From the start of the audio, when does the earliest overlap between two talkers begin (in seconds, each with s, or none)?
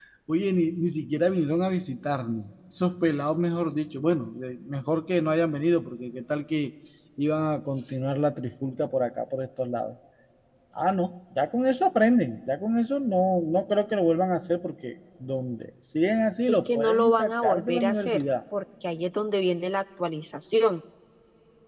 16.5 s